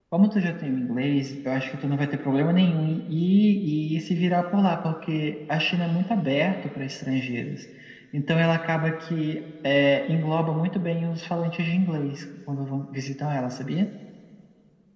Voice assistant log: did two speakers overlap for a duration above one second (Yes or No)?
No